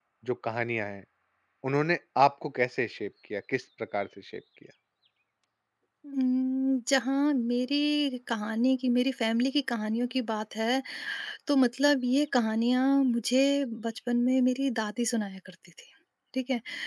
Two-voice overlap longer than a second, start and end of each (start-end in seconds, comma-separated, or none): none